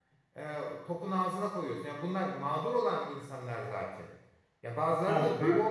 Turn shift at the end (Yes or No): No